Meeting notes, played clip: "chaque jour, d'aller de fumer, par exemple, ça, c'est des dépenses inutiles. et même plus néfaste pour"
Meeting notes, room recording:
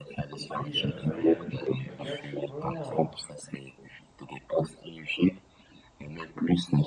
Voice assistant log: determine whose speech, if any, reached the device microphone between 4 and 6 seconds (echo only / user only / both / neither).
echo only